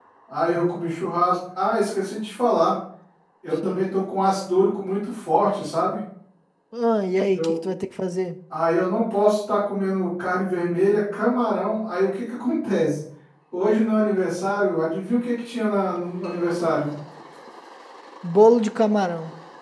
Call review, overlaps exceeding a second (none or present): none